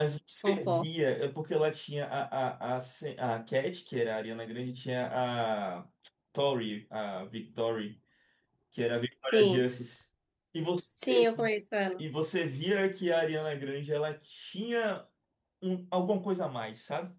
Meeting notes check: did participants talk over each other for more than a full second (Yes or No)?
No